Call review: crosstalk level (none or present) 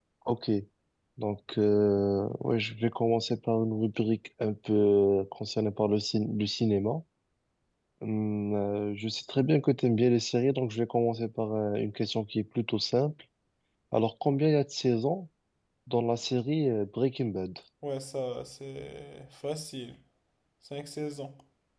none